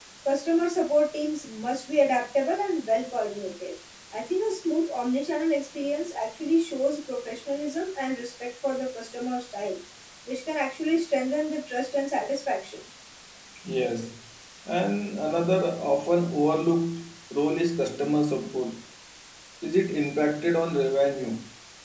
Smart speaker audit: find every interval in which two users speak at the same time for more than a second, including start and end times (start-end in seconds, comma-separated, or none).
none